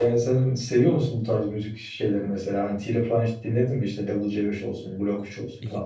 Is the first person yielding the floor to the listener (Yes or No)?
Yes